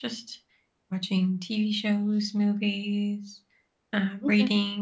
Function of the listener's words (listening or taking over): listening